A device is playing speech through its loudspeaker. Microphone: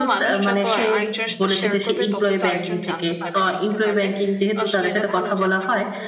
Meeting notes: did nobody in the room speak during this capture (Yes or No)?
No